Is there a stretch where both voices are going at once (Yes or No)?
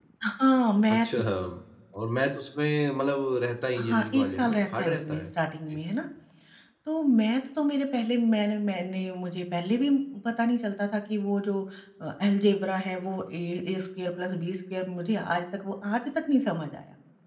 Yes